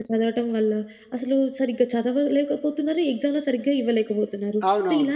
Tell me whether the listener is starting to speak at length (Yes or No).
No